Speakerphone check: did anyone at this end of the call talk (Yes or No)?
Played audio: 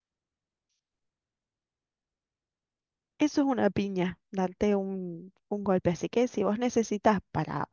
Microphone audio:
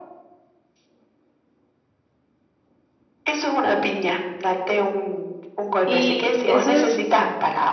Yes